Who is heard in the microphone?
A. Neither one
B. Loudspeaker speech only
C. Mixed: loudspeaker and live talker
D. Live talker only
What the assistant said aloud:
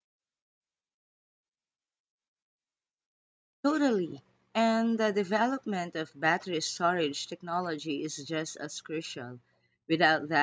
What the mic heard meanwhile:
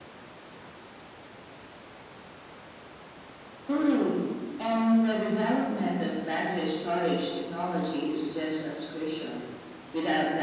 B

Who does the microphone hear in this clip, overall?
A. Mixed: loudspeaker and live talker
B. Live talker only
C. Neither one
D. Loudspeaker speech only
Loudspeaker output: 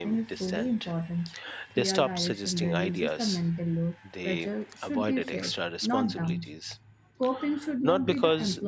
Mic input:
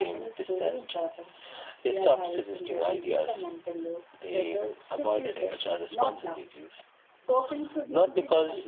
D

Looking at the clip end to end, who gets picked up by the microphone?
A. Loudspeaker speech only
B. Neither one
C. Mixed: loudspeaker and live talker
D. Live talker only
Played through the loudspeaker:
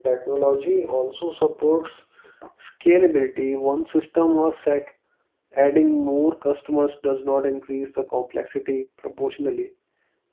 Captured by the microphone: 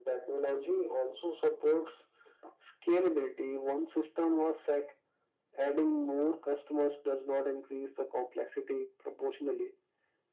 A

